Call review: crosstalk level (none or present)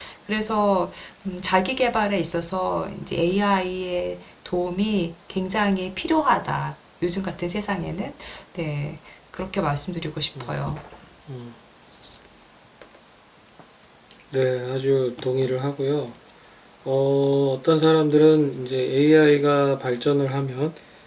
none